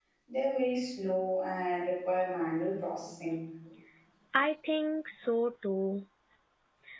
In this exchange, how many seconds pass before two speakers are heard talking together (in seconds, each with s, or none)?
none